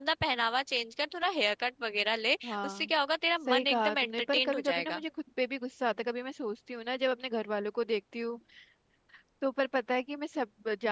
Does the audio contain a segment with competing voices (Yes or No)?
Yes